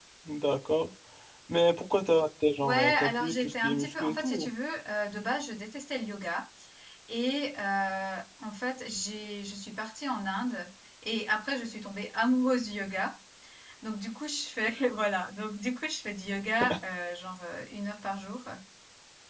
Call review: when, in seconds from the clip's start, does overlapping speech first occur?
2.6 s

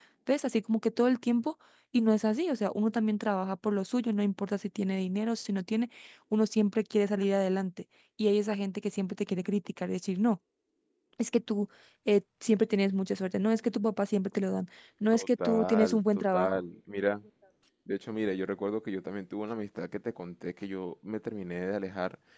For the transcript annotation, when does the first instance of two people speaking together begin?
15.1 s

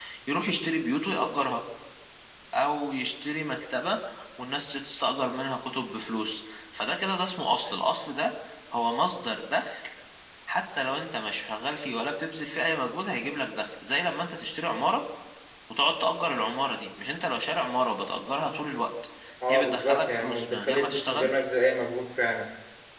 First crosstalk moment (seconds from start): 19.5 s

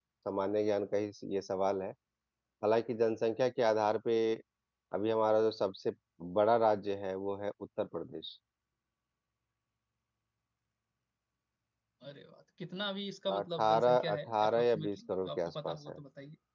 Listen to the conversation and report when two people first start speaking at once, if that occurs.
13.3 s

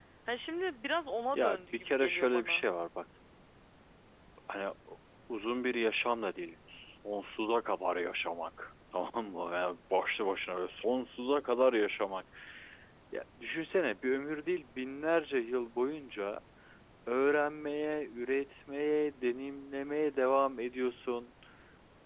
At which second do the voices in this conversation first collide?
1.3 s

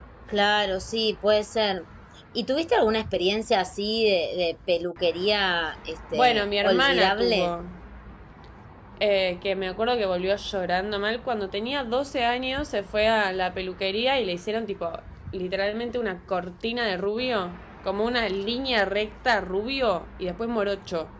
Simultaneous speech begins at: 6.1 s

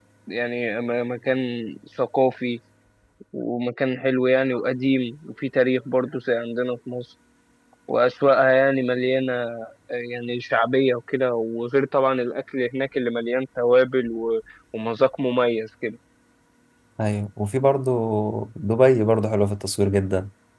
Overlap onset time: none

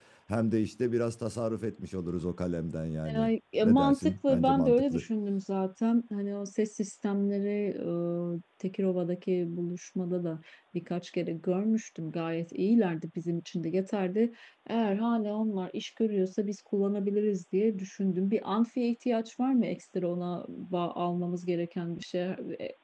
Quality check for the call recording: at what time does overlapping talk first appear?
3.1 s

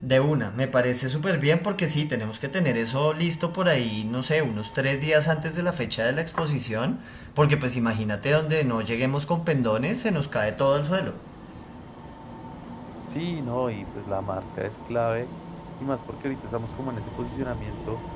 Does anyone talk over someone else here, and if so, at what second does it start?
none

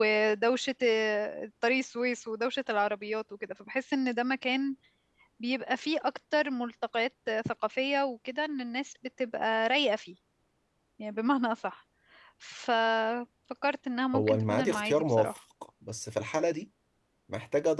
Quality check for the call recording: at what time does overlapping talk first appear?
14.1 s

